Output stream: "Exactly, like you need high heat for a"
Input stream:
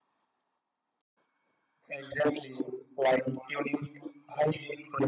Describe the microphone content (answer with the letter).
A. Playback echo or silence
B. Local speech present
A